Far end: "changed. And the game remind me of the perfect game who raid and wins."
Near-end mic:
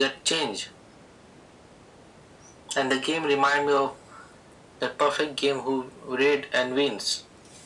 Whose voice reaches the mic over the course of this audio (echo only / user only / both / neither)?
echo only